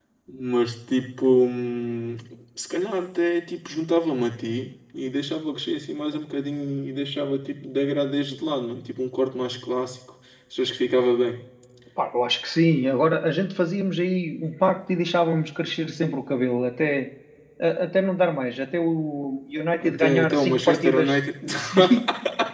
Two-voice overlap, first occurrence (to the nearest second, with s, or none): 20 s